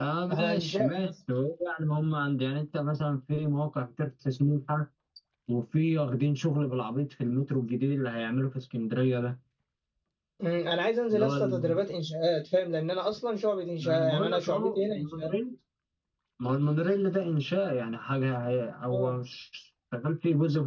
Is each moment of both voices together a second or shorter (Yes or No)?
No